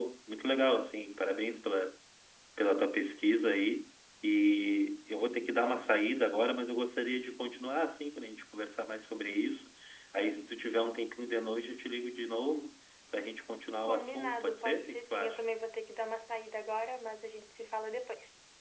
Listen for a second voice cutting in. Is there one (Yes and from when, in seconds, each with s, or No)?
Yes, from 13.9 s